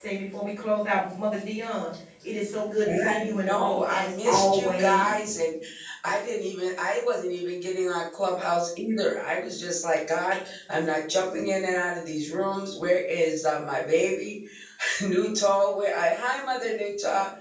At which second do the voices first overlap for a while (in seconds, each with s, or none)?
2.8 s